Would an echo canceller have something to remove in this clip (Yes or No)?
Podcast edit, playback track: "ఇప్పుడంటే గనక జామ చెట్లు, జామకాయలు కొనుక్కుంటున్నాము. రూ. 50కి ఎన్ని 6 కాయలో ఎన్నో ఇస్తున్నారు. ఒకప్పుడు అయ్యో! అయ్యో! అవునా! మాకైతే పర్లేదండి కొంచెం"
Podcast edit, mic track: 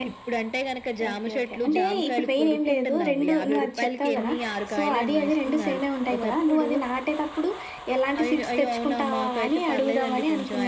Yes